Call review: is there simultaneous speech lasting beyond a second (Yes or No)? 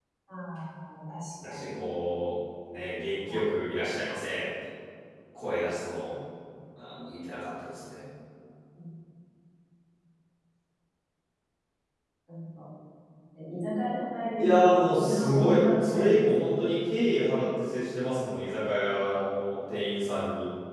Yes